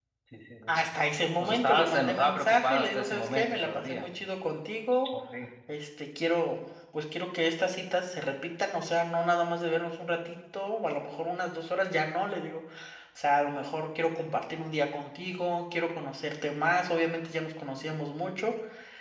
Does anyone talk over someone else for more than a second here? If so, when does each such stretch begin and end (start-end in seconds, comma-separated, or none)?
1.4-4.1